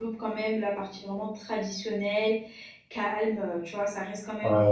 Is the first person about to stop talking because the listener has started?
Yes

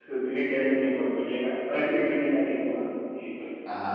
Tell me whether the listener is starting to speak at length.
Yes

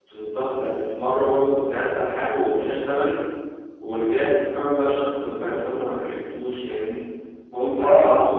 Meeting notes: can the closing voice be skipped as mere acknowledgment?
Yes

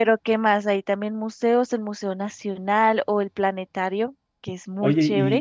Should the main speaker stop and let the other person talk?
Yes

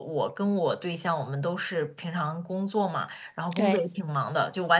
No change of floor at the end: Yes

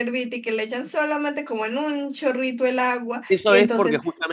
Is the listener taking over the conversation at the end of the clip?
Yes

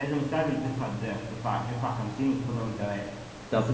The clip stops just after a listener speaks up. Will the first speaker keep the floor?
Yes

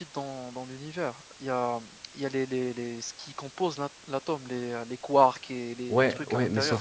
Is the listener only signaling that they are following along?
No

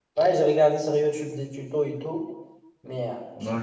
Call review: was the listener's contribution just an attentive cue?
No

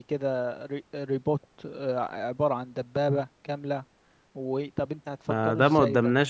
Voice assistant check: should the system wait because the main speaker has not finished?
No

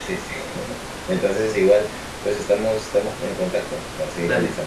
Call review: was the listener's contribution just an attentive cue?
No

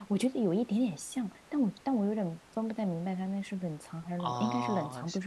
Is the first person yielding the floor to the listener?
Yes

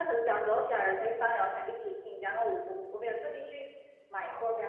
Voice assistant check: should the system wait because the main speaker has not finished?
Yes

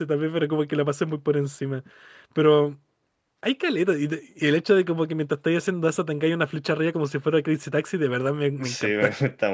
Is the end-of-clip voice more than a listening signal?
Yes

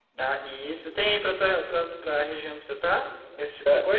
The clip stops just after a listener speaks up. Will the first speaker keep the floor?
No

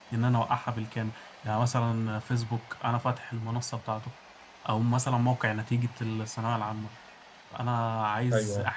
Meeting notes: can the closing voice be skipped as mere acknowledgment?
Yes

